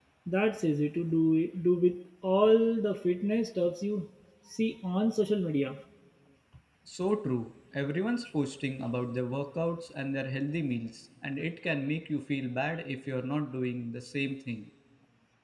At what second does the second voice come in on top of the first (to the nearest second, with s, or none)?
none